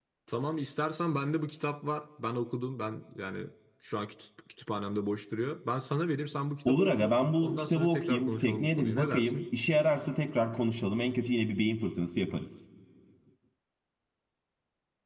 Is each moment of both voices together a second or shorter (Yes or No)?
No